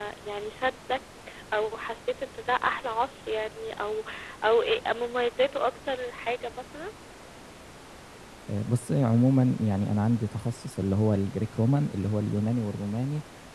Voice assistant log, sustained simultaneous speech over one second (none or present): none